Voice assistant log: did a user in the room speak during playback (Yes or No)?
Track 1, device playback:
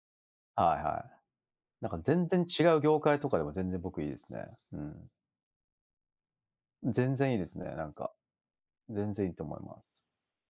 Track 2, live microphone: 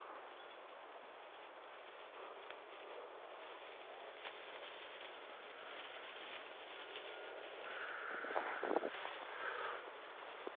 No